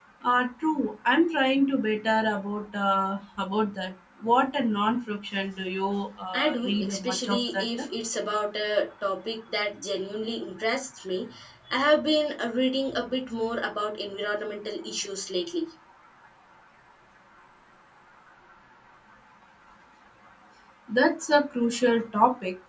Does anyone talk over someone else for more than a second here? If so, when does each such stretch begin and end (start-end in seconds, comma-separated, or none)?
6.3-7.7